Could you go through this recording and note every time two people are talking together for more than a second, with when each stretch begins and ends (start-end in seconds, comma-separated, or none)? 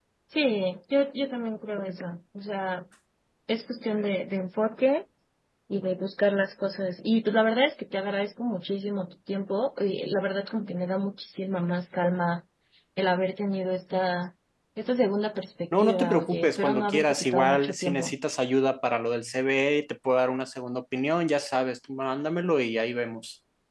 15.8-18.2